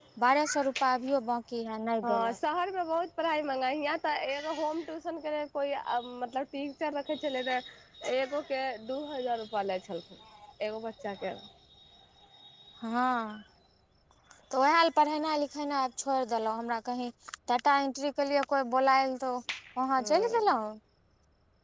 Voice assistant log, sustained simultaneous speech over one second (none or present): none